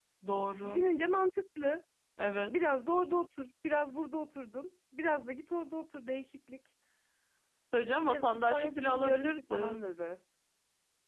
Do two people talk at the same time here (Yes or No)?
Yes